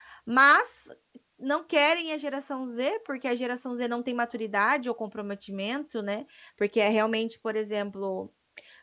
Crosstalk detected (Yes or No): No